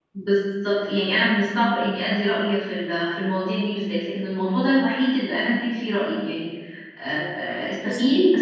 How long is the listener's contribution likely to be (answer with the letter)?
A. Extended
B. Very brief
B